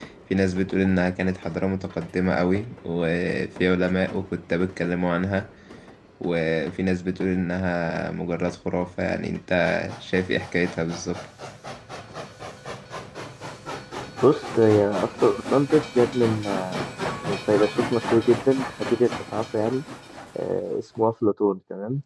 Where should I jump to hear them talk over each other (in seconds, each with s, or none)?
none